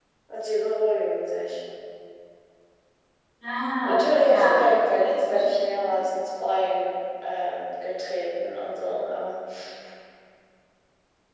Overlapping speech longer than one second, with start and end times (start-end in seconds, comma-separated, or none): 3.8-6.0